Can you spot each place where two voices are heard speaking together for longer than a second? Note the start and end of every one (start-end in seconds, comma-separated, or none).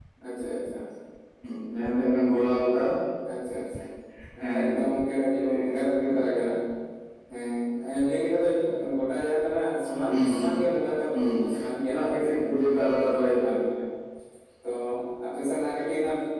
11.8-13.5